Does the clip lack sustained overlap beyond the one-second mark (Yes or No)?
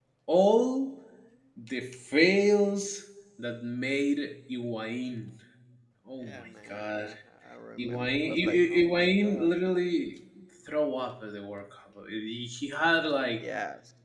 No